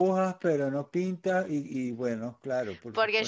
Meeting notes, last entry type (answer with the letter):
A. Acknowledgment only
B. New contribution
B